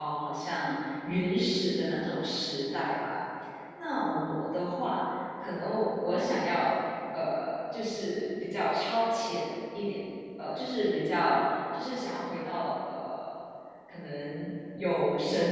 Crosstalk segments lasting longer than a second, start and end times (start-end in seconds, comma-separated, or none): none